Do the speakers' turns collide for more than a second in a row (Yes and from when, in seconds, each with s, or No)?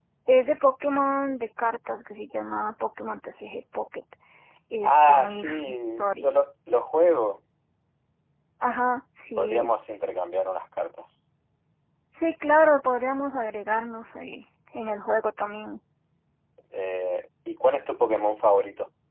Yes, from 4.8 s